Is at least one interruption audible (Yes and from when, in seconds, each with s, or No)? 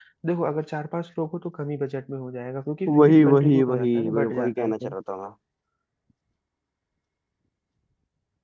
Yes, from 2.9 s